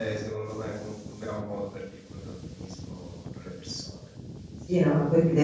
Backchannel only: No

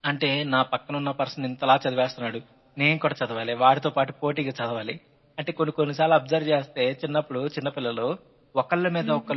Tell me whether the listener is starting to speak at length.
No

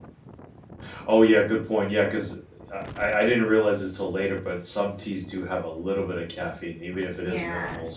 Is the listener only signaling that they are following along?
No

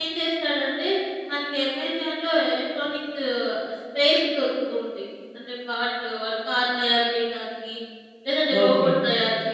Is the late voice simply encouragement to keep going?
Yes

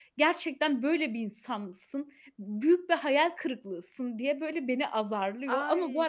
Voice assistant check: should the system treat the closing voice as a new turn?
Yes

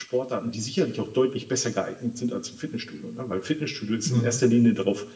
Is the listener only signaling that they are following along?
Yes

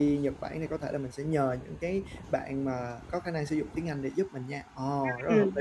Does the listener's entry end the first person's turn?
Yes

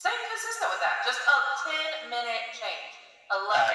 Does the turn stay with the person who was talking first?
Yes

